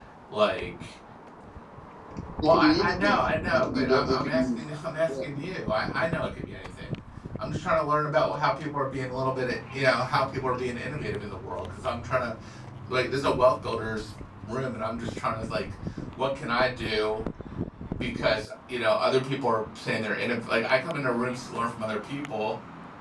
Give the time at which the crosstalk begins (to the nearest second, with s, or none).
2 s